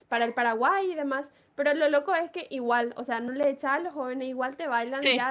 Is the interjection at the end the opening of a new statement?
No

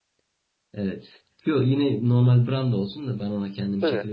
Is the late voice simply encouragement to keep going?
Yes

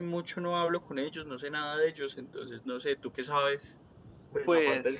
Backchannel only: No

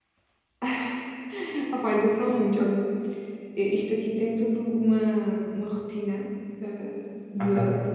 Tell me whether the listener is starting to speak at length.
No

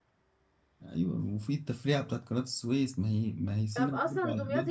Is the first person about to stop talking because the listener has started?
Yes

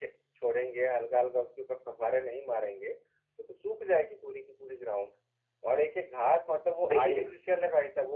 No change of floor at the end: Yes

